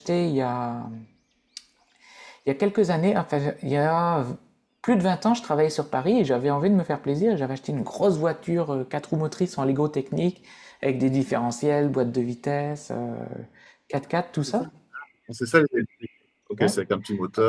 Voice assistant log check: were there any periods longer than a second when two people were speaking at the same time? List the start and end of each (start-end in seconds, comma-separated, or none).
none